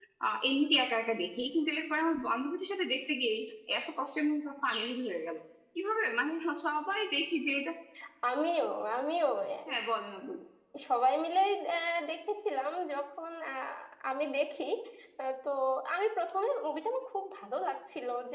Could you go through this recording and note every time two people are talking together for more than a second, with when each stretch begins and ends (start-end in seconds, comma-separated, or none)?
none